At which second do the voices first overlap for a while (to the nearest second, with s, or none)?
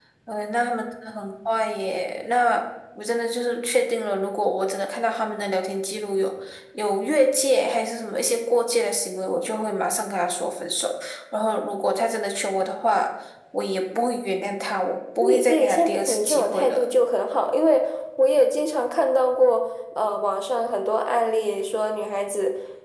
15 s